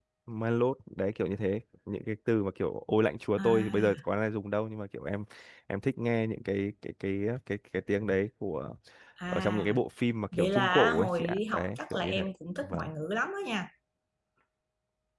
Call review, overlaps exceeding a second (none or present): present